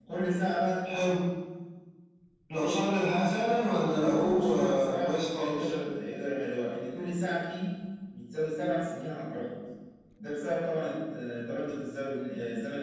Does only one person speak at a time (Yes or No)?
No